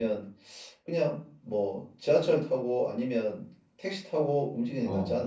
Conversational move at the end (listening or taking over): taking over